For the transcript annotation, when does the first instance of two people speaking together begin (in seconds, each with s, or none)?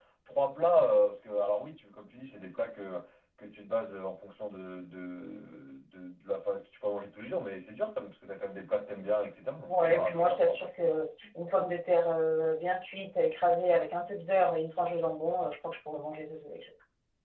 9.7 s